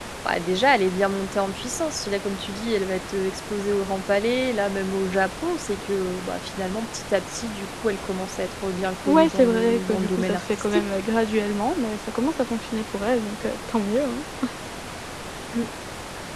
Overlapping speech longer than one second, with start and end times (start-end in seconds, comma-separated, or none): 9.0-10.9